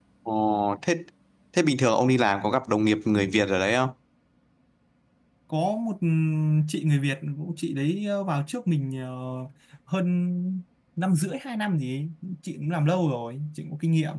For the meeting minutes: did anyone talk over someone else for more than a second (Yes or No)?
No